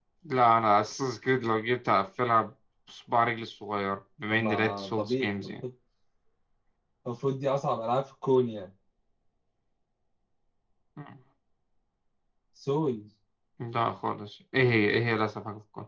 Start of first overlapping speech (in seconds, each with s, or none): 4.3 s